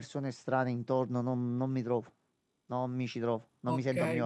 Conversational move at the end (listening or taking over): taking over